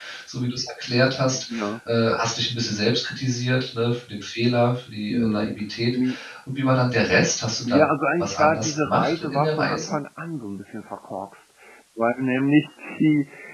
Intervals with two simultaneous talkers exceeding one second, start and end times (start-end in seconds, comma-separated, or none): 8.2-9.9